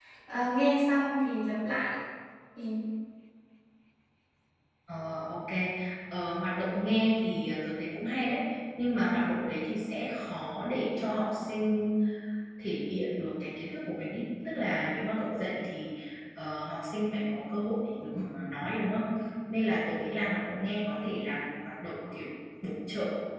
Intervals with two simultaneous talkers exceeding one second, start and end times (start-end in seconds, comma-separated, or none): none